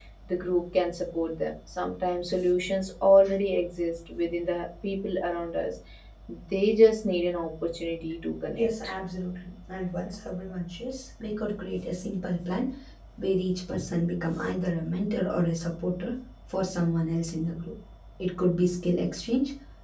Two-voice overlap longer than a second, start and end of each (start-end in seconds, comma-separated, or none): none